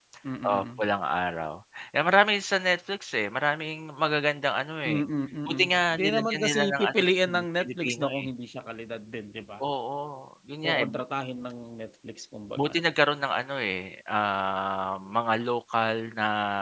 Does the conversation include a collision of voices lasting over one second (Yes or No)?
Yes